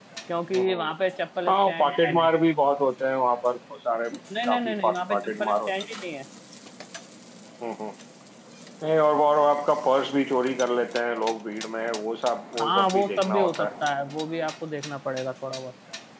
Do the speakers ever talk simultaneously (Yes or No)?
Yes